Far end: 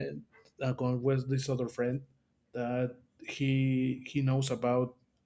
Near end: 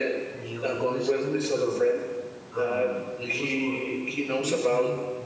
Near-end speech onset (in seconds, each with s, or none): 0.3 s